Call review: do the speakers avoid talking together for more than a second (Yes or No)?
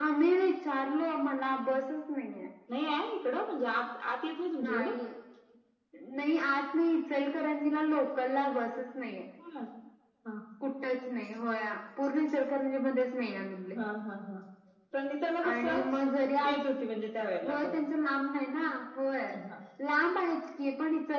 Yes